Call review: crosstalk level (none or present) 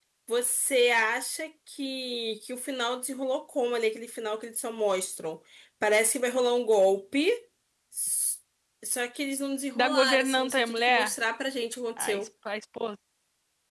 present